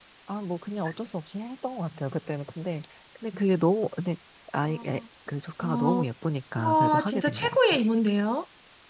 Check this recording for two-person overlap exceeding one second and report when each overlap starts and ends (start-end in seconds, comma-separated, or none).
6.6-7.8